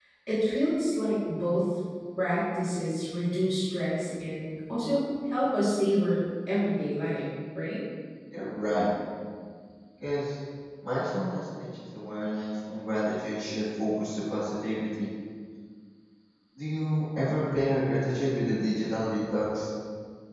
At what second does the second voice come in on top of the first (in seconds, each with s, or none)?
none